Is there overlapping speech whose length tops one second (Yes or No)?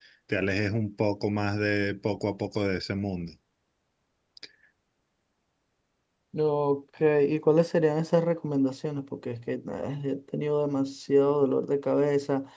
No